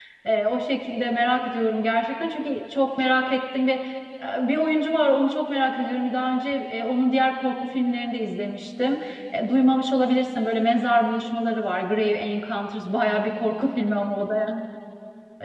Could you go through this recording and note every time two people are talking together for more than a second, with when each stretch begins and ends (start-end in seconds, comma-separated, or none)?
none